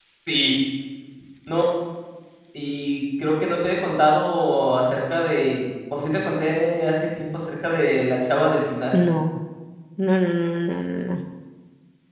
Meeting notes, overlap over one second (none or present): none